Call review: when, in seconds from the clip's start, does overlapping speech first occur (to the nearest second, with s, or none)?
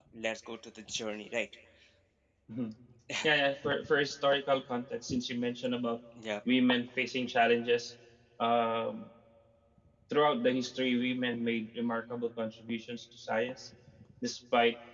none